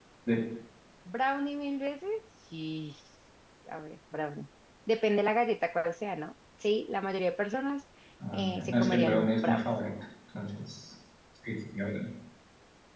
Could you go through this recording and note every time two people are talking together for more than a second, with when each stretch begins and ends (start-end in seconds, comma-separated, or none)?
8.3-9.7